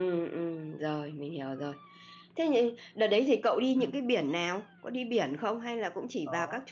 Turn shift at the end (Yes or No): Yes